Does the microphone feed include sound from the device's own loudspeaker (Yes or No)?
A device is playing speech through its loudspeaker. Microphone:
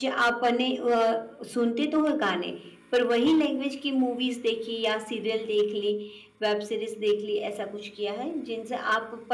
No